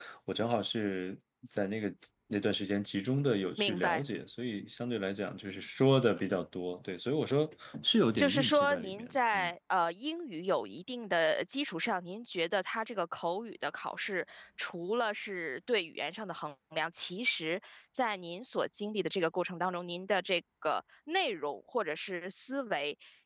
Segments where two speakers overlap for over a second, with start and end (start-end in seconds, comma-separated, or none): 8.2-9.5